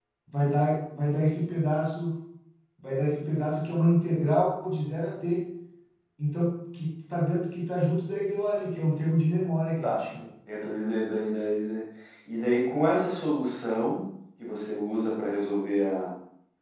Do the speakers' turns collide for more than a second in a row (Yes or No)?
No